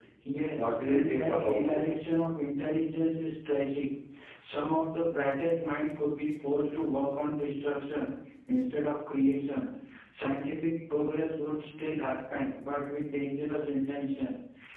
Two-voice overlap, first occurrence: 0.6 s

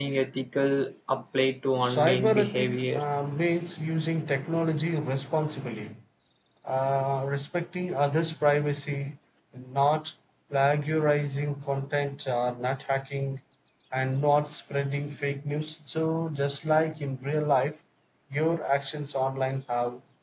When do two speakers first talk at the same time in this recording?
1.8 s

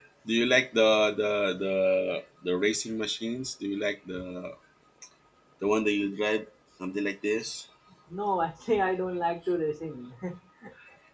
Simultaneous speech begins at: none

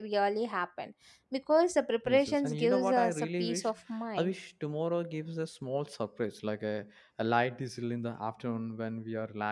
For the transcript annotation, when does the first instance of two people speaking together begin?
2.0 s

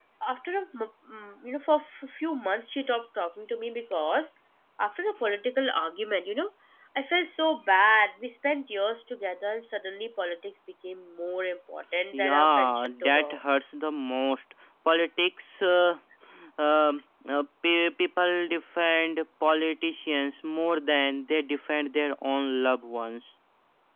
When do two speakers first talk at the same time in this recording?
12.1 s

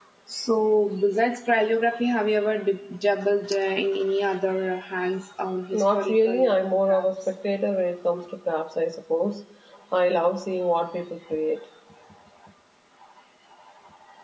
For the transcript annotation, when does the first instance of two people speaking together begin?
5.7 s

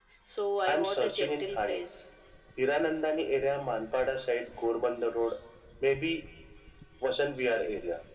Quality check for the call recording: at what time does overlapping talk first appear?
0.7 s

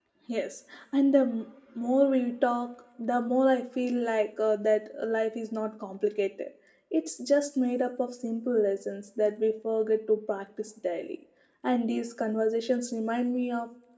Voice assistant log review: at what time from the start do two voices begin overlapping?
none

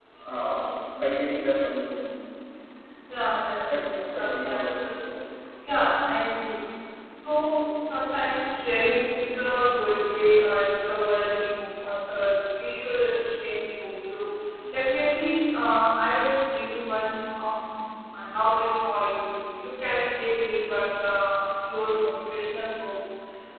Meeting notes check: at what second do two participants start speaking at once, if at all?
3.6 s

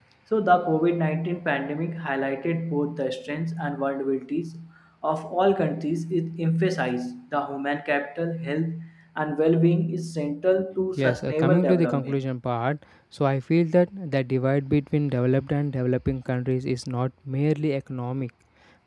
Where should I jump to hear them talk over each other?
11.0 s

